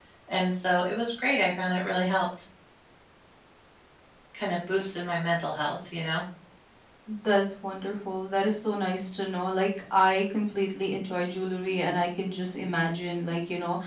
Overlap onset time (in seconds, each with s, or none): none